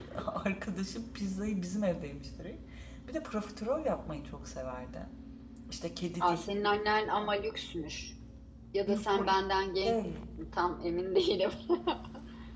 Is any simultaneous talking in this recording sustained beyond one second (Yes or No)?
No